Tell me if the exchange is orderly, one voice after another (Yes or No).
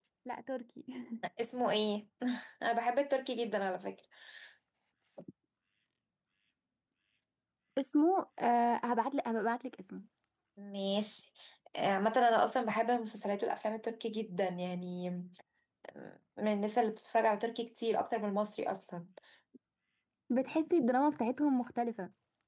Yes